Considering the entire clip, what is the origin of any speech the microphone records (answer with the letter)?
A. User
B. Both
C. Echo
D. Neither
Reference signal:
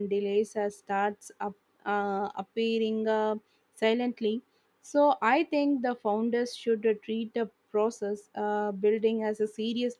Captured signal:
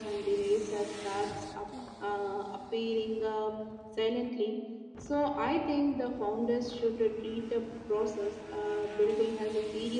C